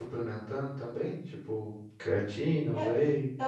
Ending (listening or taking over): taking over